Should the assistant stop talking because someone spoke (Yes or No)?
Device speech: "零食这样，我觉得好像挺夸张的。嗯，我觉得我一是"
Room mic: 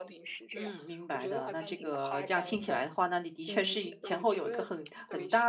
Yes